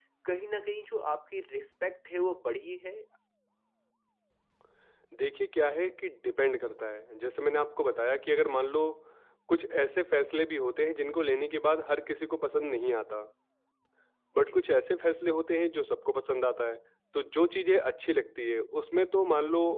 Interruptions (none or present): none